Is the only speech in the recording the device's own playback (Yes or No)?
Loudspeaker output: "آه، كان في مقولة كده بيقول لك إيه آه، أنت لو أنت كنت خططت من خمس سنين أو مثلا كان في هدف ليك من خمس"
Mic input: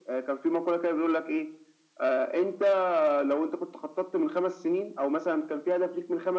Yes